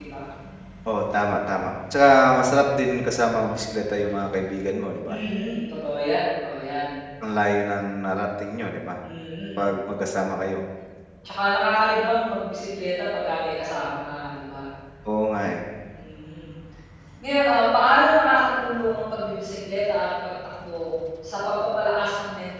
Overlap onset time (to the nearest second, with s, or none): none